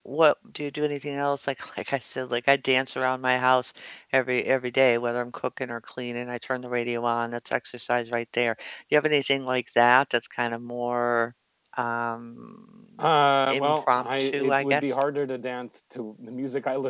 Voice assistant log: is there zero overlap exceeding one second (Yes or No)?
No